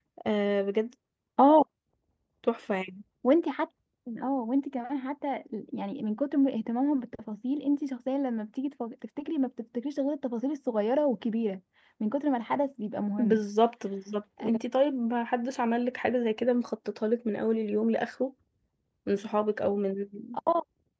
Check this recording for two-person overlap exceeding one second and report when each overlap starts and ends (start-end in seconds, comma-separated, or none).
none